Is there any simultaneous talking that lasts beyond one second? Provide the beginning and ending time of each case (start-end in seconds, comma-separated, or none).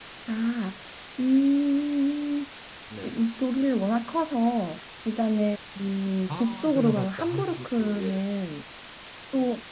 6.3-8.2